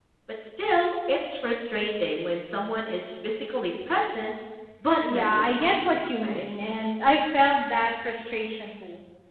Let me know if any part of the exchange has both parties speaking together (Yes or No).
Yes